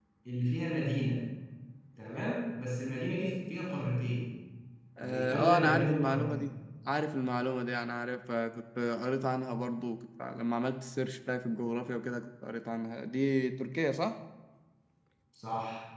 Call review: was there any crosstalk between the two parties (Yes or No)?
Yes